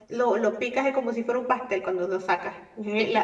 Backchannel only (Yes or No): Yes